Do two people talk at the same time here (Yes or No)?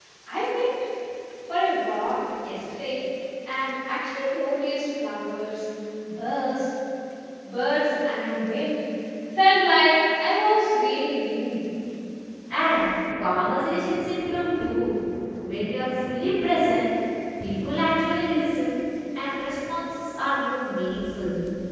No